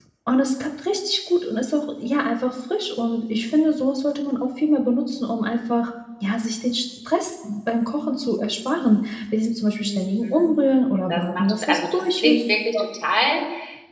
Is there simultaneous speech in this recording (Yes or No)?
Yes